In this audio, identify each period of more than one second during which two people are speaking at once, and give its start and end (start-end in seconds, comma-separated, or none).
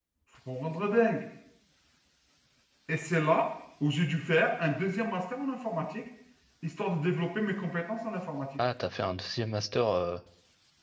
none